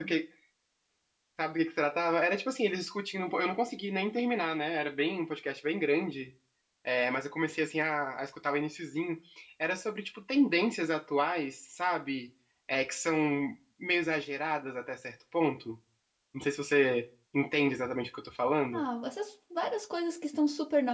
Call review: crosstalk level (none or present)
none